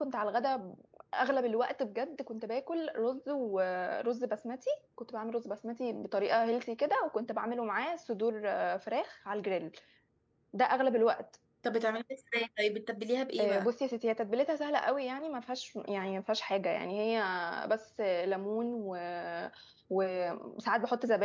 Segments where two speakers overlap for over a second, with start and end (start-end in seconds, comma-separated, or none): none